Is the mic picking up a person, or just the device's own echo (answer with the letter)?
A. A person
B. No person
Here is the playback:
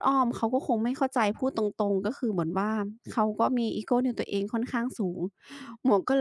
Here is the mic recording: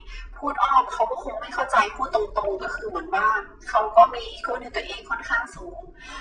B